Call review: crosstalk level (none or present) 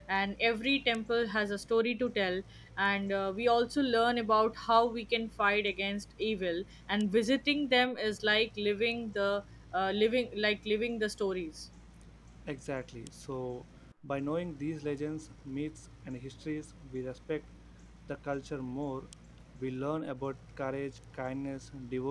none